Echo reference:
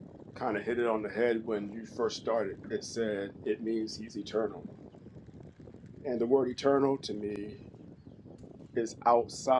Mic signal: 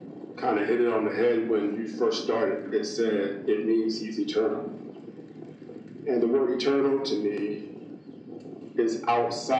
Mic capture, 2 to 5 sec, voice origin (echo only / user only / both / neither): echo only